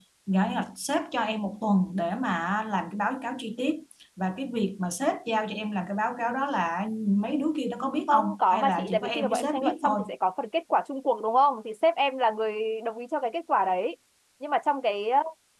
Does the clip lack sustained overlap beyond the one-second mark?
No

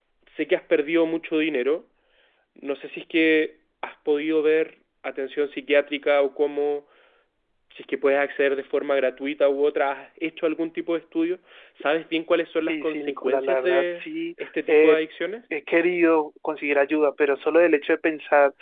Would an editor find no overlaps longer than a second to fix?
No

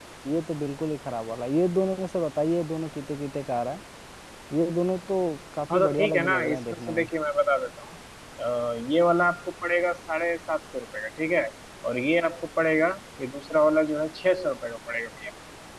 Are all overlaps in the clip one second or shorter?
No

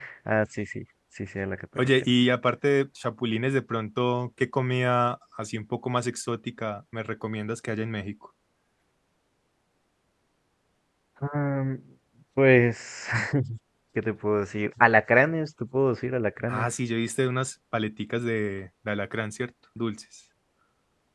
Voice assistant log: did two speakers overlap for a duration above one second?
No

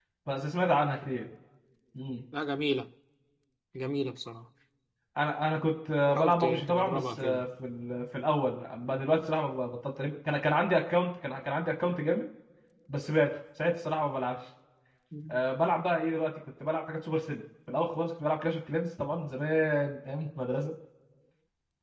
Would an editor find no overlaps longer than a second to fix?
No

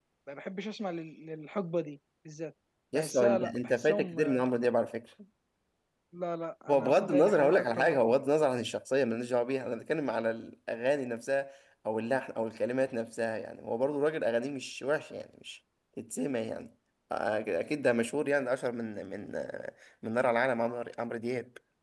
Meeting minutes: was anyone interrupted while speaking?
Yes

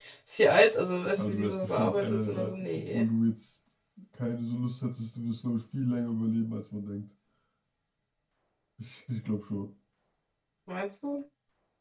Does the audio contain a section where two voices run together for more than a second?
Yes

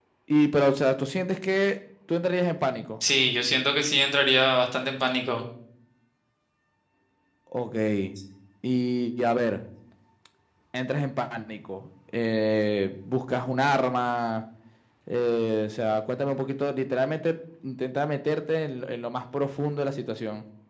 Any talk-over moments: No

